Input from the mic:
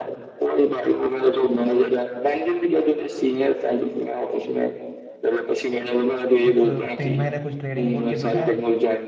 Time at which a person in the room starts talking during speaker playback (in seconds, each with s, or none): 6.5 s